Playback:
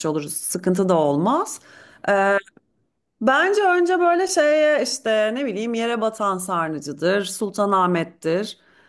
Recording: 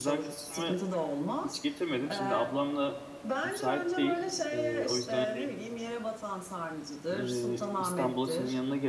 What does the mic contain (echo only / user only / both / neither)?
both